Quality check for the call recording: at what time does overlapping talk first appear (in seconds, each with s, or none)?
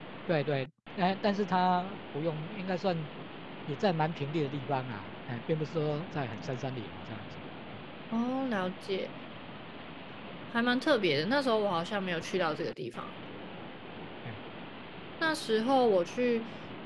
none